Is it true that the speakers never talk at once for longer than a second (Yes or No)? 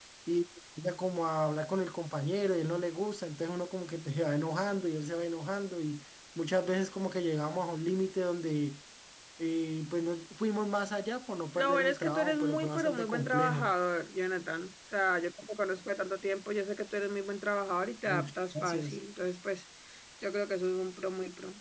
No